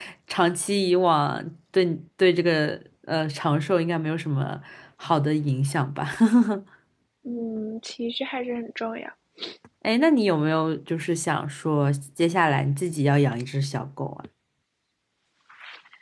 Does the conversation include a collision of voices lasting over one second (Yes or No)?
No